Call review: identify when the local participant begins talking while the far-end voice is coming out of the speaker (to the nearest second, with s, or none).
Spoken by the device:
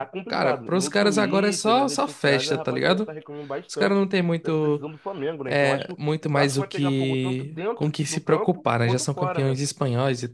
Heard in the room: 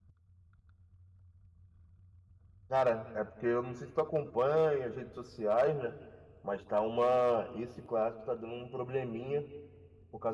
3 s